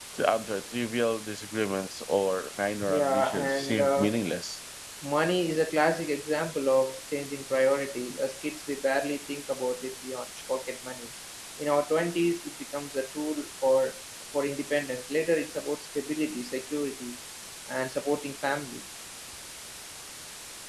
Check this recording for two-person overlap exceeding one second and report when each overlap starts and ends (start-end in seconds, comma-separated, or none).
2.9-4.1